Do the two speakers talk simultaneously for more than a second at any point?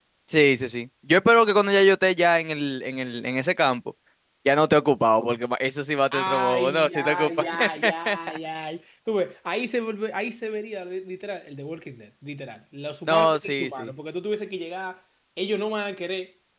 Yes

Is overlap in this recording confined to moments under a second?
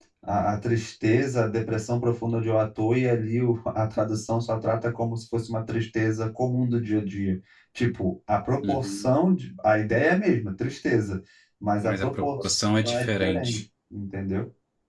No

